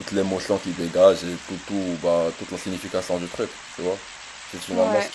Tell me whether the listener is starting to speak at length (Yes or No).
No